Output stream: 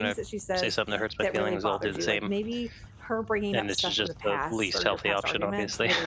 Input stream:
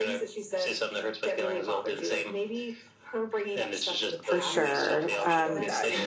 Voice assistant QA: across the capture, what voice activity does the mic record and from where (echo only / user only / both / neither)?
both